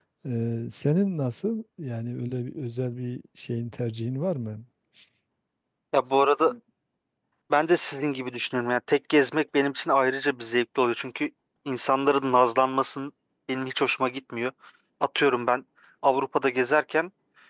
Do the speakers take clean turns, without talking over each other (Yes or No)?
Yes